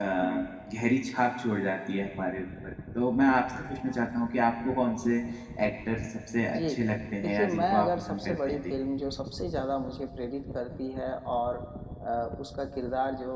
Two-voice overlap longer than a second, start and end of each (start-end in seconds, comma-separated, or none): 7.2-8.7